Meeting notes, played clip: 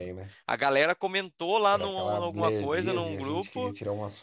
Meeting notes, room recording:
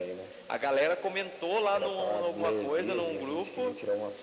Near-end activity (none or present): none